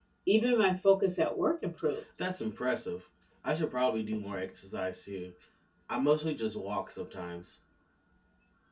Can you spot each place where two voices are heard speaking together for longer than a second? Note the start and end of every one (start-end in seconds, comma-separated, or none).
none